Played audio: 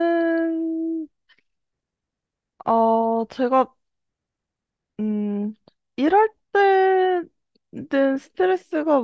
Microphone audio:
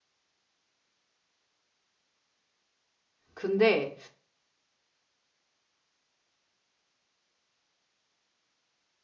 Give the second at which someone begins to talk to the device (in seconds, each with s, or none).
3.3 s